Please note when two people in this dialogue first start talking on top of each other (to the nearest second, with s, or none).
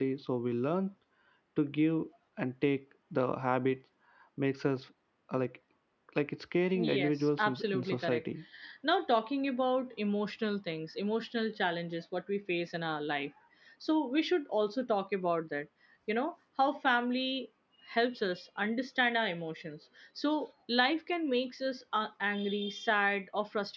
7 s